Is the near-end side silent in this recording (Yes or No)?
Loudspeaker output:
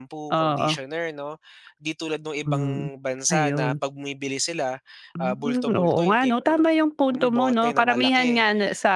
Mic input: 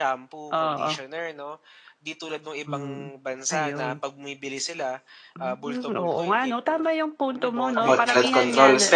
No